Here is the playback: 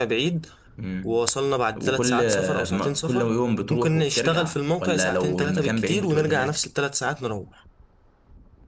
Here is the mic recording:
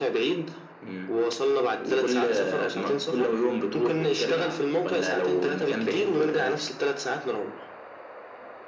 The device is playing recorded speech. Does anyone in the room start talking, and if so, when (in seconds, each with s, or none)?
none